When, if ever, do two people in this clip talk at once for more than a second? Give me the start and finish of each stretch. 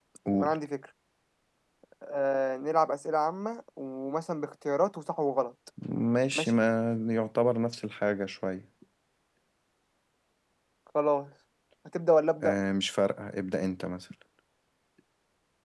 none

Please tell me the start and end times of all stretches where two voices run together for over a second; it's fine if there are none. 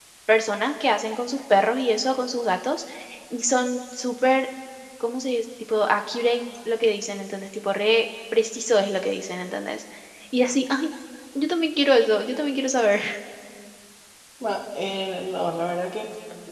none

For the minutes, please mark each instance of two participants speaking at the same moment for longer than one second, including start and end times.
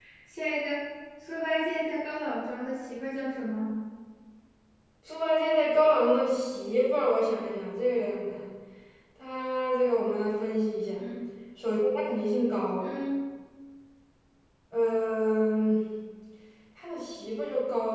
none

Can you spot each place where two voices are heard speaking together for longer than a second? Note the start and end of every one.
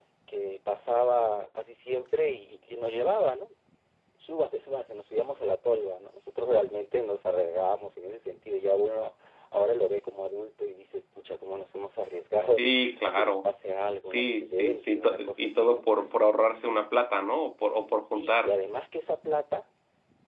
14.0-15.8

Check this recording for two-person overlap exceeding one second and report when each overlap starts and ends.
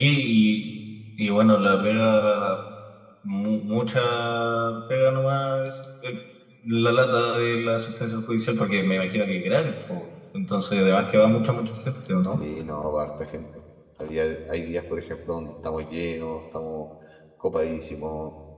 none

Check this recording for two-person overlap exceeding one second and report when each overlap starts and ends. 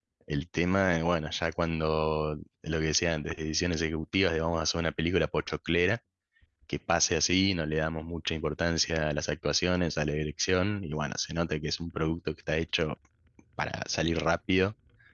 none

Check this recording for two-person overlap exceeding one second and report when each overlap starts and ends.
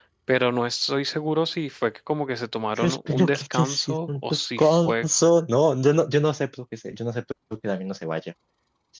2.8-5.0

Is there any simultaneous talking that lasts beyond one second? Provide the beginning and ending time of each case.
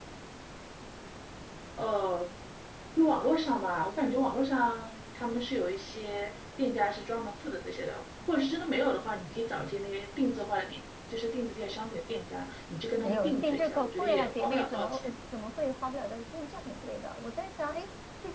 13.0-15.1

